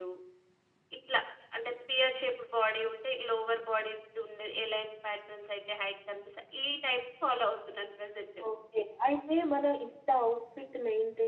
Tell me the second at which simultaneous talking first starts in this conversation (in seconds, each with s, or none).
none